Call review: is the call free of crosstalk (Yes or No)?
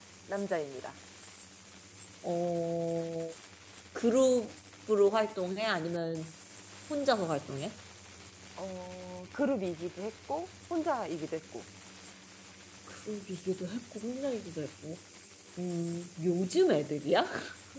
Yes